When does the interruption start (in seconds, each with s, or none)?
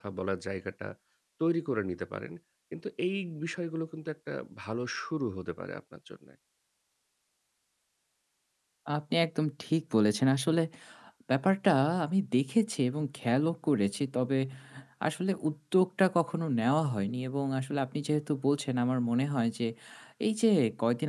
none